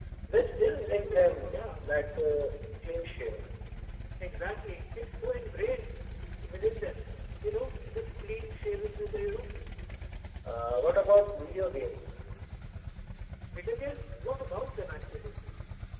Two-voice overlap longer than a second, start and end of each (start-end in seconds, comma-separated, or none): 0.6-1.9